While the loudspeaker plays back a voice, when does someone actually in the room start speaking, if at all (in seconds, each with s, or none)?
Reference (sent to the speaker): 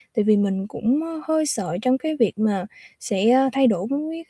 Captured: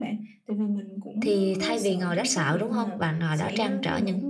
1.2 s